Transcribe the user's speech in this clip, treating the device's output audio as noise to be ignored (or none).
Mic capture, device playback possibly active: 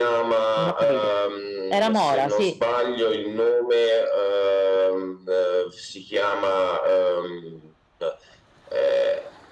Non ho capito. Era Mora, sì.